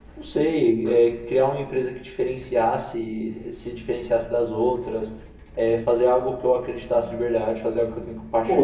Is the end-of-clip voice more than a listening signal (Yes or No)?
Yes